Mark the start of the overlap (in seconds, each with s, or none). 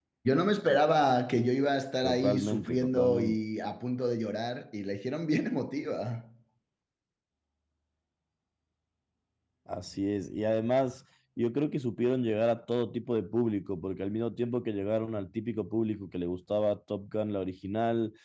2.0 s